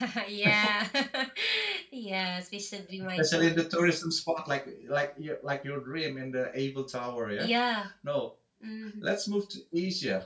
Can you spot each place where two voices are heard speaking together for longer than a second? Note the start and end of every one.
none

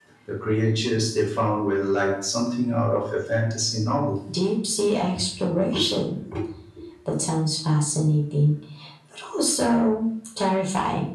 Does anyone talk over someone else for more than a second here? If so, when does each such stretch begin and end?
none

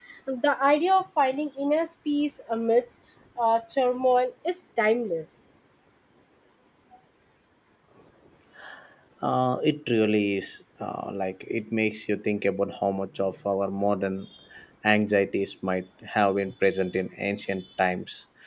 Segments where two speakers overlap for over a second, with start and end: none

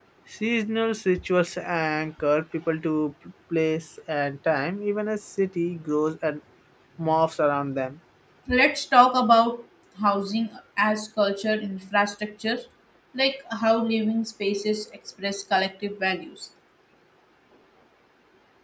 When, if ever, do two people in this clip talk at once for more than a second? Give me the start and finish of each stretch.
none

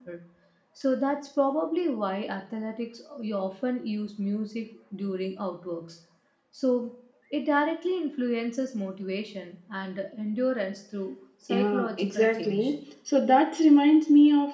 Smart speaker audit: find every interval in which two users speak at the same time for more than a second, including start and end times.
11.5-12.8

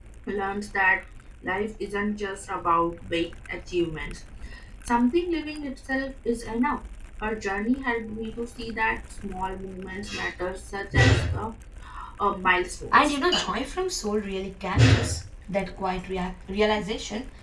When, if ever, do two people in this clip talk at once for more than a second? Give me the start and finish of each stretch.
none

